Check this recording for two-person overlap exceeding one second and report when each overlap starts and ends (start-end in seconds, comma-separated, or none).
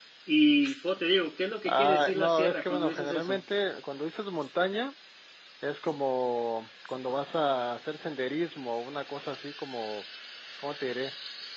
1.7-3.4